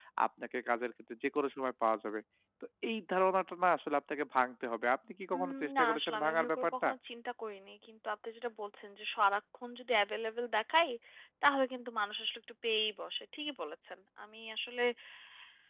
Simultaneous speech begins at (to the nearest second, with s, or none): 5 s